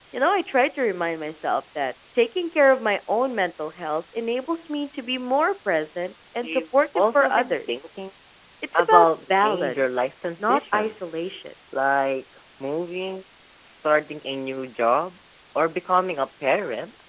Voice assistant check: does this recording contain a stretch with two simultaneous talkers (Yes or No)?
Yes